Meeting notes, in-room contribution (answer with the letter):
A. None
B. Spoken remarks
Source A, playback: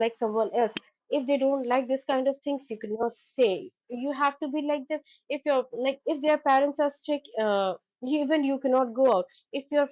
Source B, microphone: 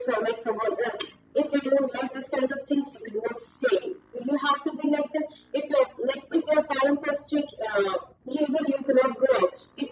A